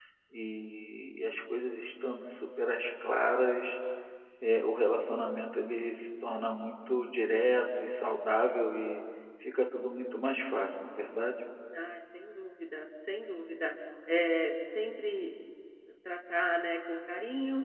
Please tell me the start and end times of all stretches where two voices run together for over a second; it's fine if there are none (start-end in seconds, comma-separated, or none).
none